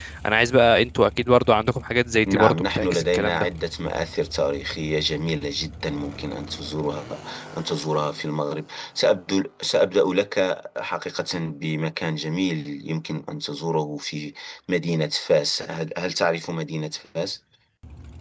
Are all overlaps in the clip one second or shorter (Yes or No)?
No